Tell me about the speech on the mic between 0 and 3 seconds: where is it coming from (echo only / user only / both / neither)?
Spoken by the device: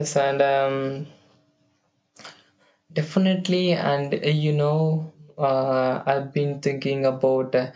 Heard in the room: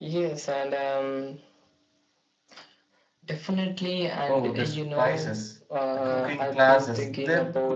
echo only